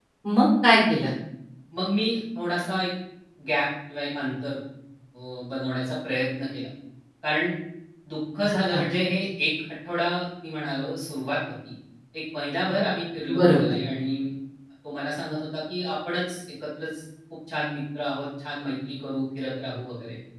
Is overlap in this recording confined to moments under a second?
Yes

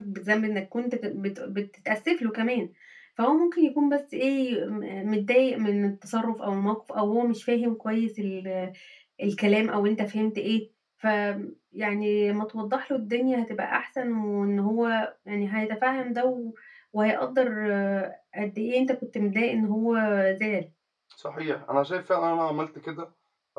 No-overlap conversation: Yes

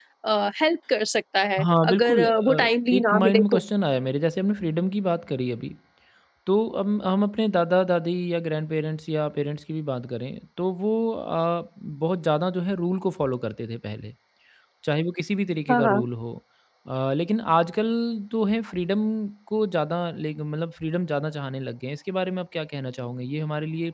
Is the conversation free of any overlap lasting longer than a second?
No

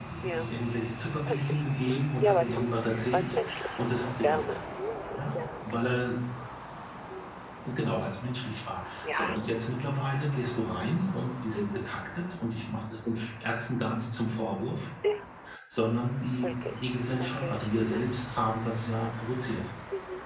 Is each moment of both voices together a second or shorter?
No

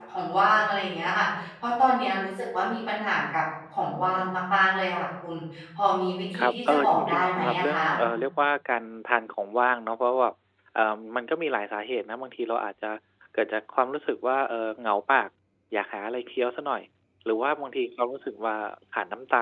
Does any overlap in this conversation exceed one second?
Yes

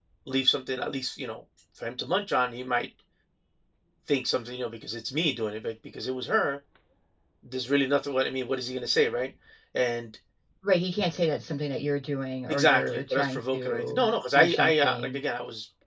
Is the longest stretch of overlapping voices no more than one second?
No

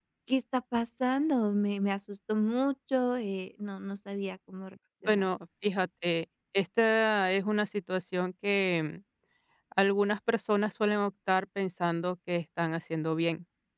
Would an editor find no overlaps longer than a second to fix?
Yes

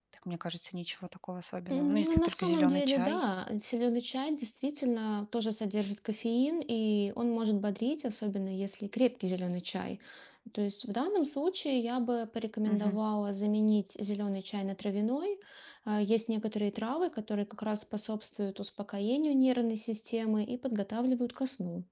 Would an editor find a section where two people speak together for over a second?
Yes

